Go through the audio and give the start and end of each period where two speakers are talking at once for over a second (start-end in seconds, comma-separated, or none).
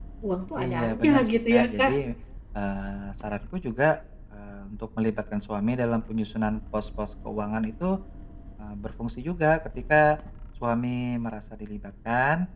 0.6-2.0